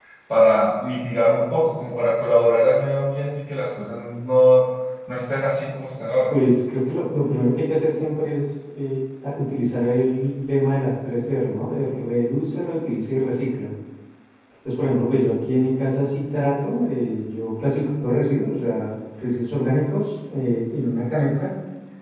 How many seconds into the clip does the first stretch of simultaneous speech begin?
none

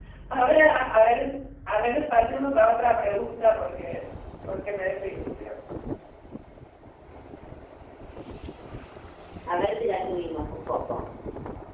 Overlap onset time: none

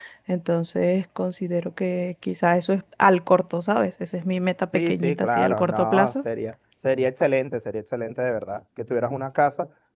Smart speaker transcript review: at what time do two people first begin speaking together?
4.7 s

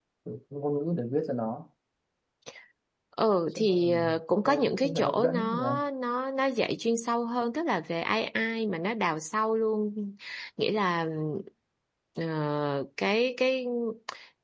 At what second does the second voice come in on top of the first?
3.6 s

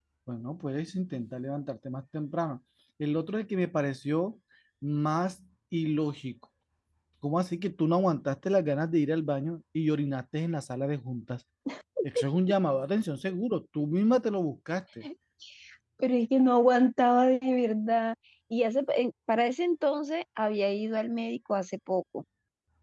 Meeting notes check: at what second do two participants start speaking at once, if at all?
none

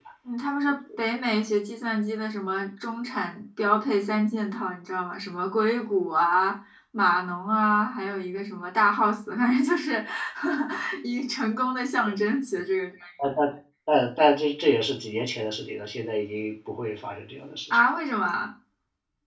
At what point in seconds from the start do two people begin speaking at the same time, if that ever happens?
none

